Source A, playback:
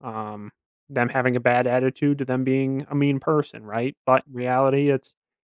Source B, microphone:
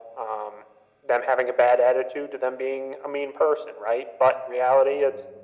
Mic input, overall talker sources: echo only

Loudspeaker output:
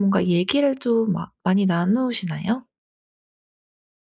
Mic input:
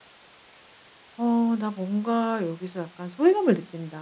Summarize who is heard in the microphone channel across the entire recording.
user only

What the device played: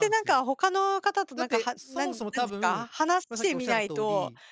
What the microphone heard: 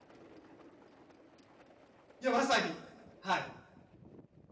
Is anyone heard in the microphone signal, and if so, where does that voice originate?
user only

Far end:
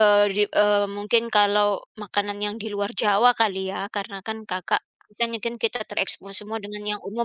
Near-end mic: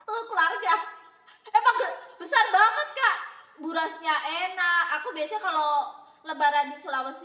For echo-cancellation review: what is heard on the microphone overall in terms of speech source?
user only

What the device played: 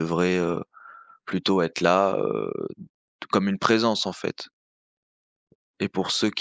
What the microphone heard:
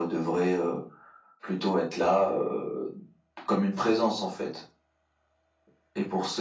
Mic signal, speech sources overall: echo only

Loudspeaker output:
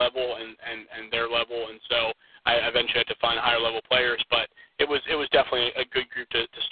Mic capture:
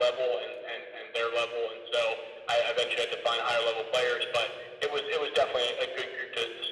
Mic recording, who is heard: echo only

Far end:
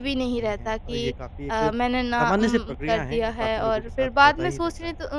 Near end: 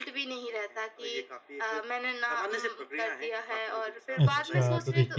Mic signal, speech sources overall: both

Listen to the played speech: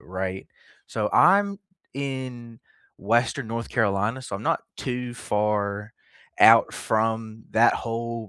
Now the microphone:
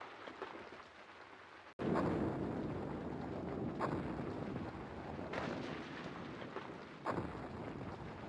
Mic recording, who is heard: neither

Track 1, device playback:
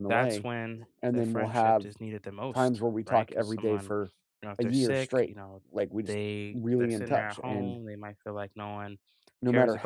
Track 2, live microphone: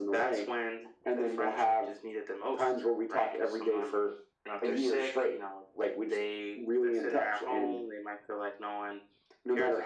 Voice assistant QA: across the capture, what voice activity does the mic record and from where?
echo only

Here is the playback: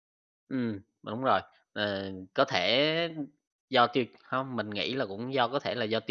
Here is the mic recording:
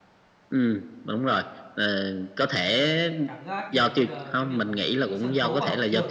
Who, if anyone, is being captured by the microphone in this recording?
both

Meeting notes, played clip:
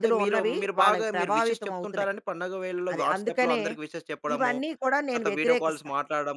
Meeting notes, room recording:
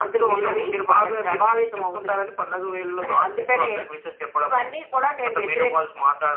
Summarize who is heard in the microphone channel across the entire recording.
echo only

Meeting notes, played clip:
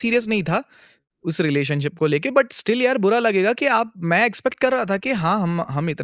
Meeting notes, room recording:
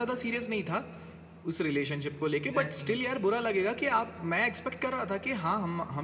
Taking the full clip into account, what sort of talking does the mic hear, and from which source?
both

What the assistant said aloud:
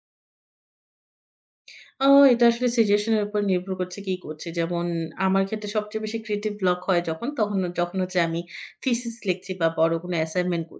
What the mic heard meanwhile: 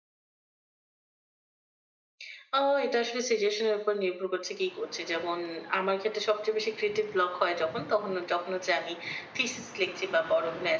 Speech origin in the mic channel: echo only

